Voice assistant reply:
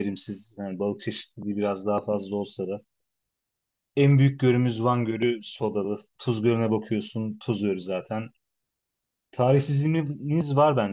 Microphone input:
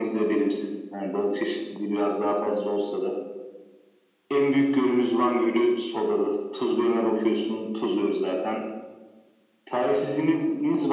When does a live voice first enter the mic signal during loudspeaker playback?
none

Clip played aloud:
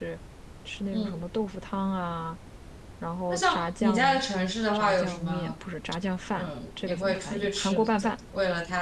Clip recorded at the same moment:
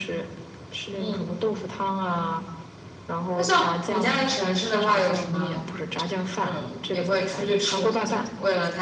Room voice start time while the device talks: none

